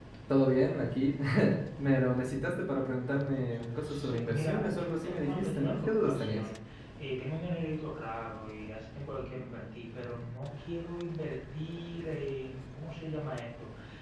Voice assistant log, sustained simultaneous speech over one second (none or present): present